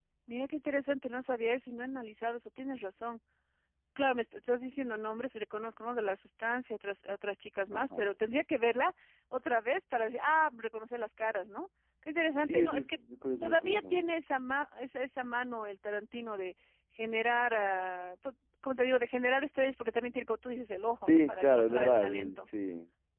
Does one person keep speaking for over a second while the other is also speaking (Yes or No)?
Yes